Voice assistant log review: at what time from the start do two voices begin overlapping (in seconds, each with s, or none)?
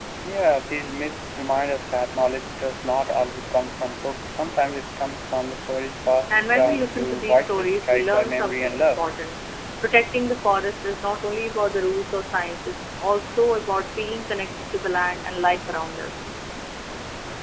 6.3 s